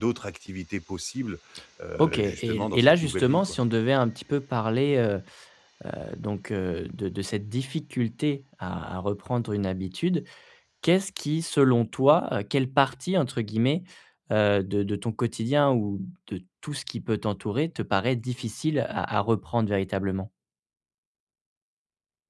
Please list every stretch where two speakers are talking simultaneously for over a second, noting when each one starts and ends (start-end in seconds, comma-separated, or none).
2.0-3.6